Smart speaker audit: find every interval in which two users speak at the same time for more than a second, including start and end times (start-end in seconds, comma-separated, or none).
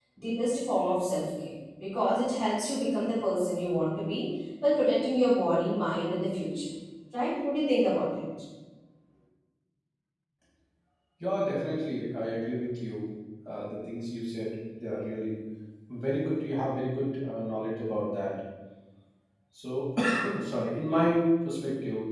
none